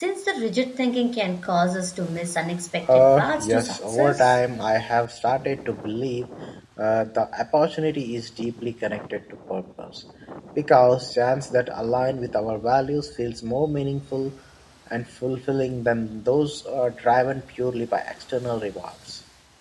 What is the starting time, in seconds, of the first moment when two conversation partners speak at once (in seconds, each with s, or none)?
2.8 s